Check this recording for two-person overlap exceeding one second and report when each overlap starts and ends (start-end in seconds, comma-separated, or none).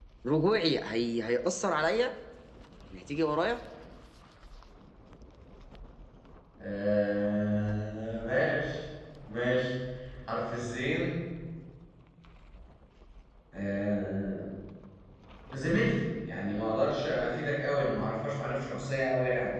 none